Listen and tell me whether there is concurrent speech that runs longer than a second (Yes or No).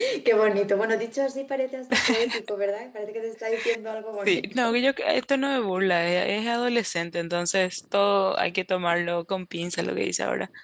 No